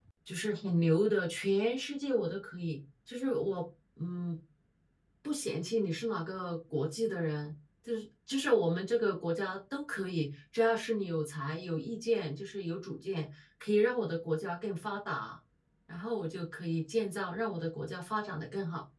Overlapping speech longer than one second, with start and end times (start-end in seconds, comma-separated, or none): none